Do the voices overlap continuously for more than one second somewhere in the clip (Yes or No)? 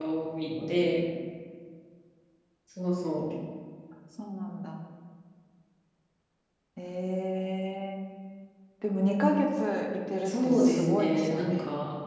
Yes